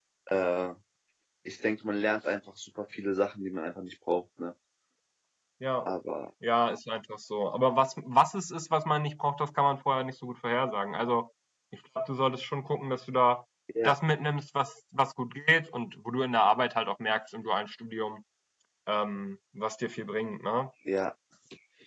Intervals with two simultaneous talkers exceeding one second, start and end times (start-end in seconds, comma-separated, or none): none